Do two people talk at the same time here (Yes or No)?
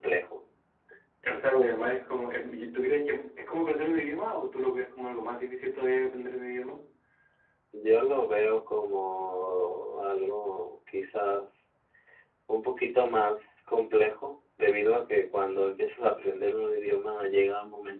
No